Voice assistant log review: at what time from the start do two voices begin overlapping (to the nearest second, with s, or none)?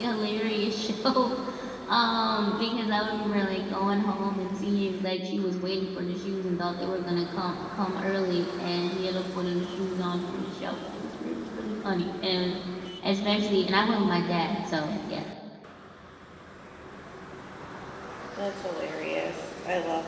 none